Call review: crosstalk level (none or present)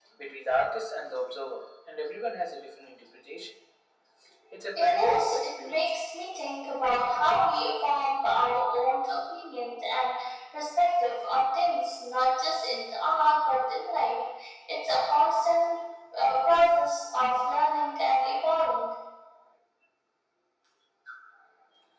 present